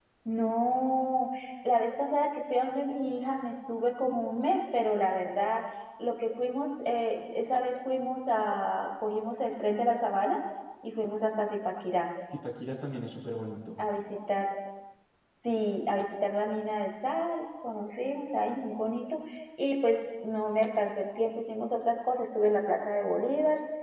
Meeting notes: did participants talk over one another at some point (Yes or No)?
No